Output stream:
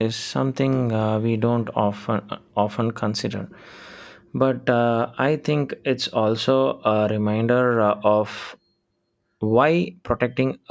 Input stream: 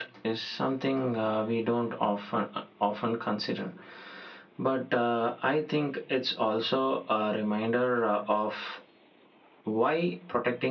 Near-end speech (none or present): none